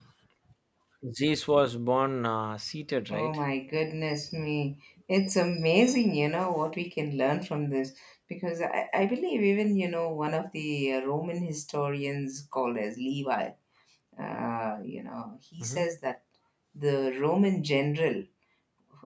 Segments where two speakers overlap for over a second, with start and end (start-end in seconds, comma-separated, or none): none